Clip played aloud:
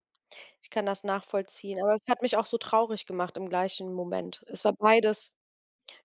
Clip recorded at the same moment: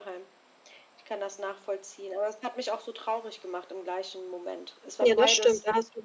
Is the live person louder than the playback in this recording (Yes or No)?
Yes